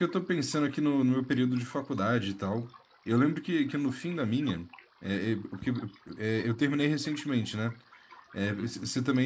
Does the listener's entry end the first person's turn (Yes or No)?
No